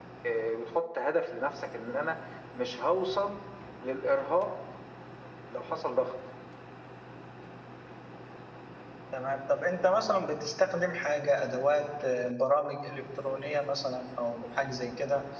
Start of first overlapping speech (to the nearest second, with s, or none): none